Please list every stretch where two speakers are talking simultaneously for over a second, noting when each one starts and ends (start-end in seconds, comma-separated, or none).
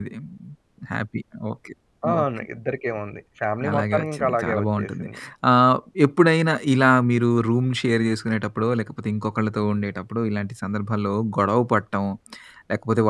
3.7-5.0